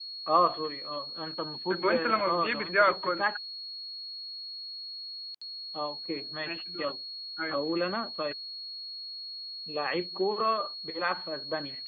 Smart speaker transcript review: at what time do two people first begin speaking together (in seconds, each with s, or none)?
1.7 s